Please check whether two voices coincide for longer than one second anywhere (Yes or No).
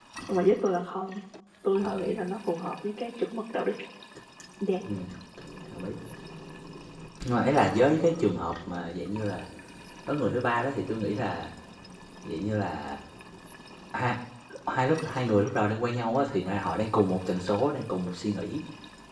No